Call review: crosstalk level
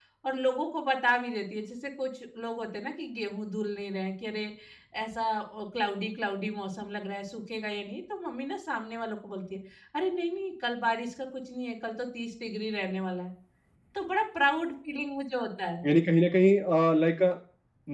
none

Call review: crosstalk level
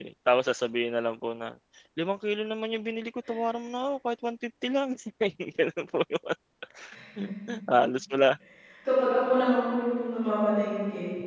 none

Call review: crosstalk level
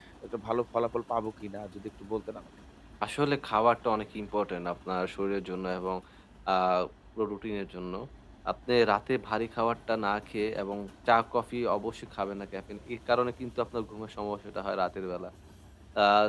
none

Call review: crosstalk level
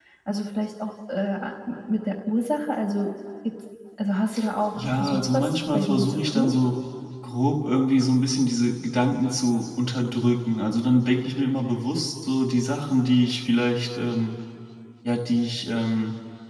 present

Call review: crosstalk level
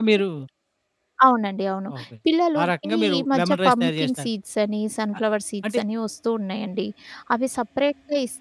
present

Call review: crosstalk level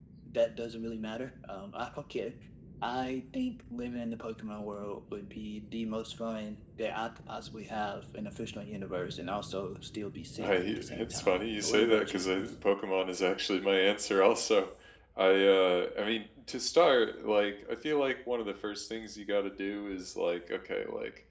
present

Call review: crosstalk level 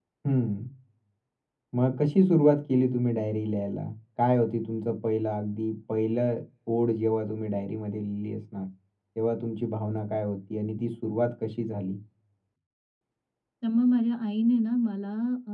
none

